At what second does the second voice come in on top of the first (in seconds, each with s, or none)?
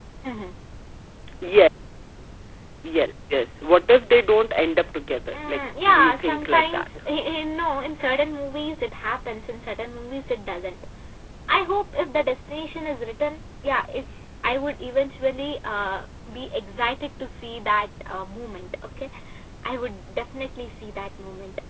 5.3 s